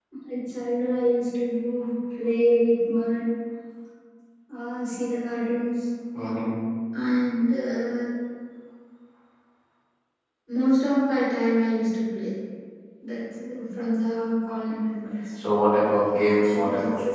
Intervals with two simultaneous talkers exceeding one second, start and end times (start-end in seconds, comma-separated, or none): none